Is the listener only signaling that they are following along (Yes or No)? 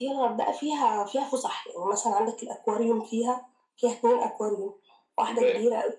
No